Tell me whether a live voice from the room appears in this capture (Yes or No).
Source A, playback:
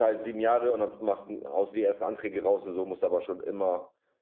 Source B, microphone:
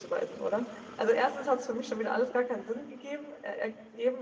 Yes